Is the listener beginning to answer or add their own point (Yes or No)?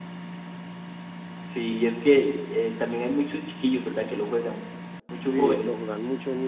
Yes